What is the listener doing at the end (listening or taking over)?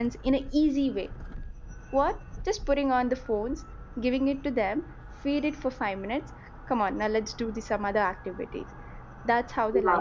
taking over